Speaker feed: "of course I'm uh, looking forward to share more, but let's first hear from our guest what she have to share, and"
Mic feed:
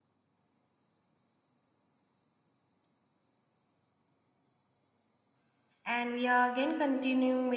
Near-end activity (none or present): present